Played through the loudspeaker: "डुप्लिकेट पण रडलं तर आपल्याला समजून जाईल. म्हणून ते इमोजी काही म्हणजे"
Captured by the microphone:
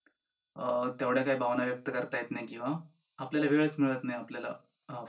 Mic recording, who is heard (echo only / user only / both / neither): user only